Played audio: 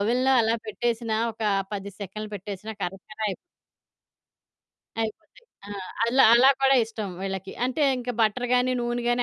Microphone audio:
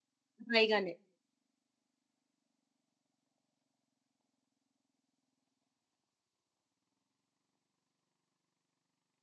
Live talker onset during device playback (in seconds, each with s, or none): 0.5 s